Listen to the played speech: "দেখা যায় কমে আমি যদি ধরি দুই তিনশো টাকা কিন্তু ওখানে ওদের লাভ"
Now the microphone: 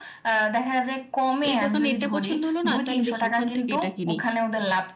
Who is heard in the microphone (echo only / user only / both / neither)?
both